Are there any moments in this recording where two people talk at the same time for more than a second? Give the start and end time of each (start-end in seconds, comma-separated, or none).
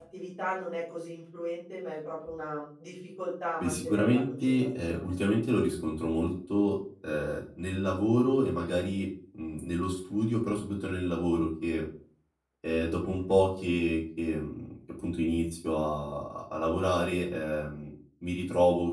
3.6-5.1